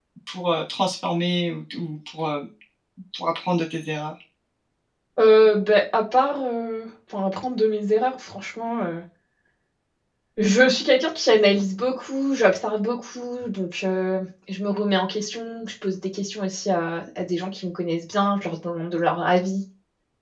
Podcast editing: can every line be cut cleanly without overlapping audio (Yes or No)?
Yes